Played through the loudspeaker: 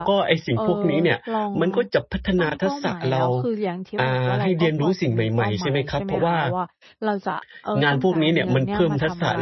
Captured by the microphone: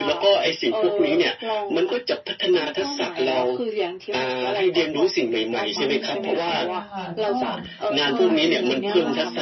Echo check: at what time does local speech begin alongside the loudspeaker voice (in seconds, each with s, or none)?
5.6 s